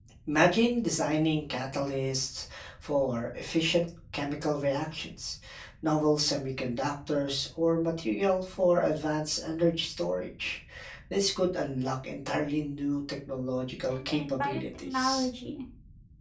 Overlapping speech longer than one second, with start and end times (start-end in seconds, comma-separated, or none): 13.9-15.3